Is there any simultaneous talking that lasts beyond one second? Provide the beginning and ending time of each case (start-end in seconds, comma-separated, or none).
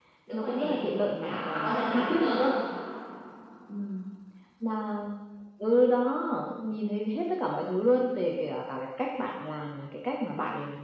1.2-2.4